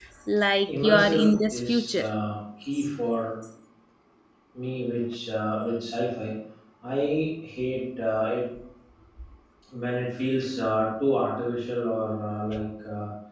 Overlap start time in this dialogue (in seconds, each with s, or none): 0.7 s